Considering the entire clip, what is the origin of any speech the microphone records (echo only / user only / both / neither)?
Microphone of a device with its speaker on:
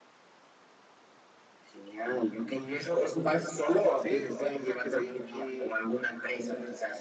both